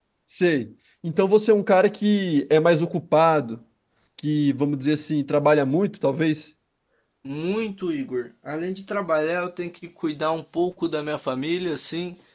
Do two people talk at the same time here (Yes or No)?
No